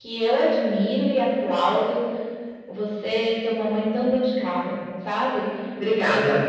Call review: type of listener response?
listening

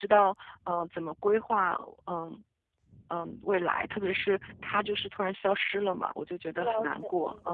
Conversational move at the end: taking over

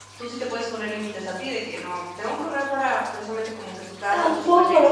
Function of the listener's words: taking over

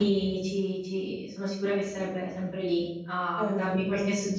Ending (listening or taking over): listening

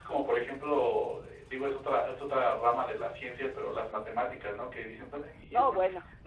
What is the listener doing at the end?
listening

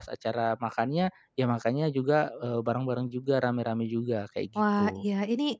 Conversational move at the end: taking over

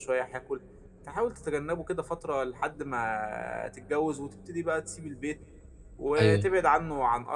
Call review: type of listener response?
listening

